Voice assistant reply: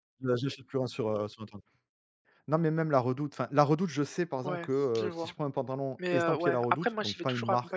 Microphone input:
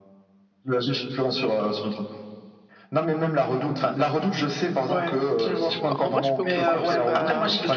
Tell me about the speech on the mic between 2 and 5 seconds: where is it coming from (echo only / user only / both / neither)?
echo only